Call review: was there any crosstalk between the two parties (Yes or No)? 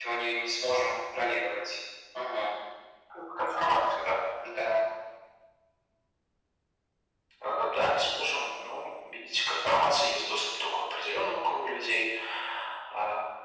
No